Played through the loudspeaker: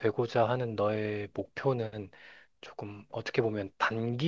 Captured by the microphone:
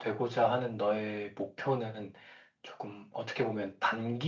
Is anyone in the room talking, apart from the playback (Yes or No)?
No